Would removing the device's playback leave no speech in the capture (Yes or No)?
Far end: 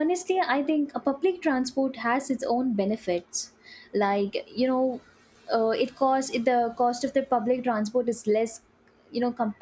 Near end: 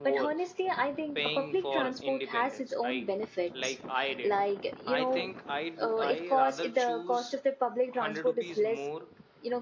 No